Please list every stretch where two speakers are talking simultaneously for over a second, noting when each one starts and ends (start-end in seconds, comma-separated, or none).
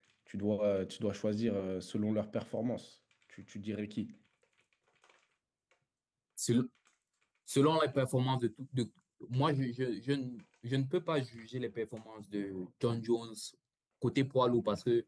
none